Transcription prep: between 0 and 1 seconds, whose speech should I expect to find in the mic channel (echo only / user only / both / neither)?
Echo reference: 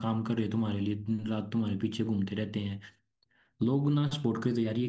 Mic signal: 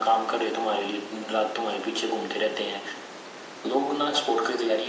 echo only